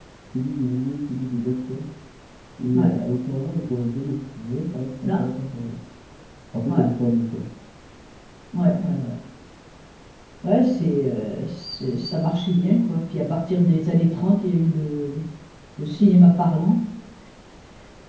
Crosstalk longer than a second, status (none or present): none